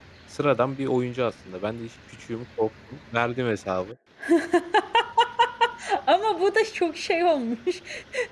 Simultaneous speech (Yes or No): No